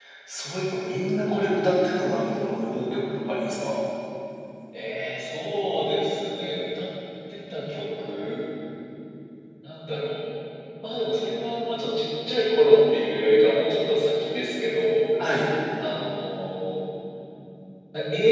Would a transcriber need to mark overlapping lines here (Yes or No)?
No